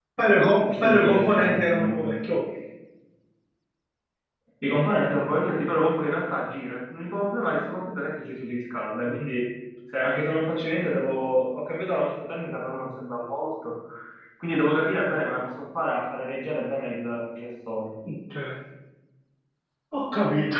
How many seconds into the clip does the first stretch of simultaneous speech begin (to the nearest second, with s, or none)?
1 s